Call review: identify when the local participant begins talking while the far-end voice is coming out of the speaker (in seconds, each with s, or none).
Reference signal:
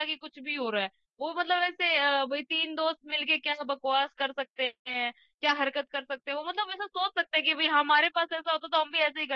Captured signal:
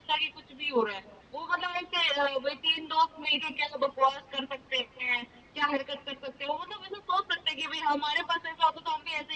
none